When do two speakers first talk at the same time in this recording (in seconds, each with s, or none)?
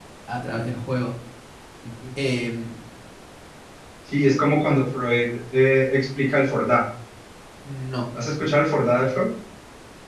none